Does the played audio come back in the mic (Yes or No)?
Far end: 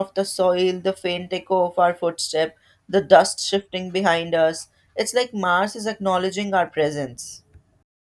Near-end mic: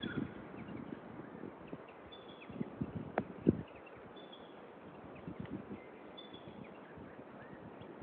No